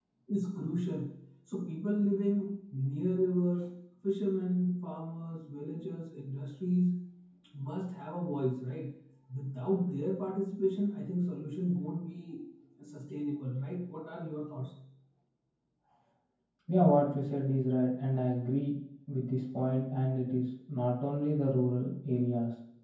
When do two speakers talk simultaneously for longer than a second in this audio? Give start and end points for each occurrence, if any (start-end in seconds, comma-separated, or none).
none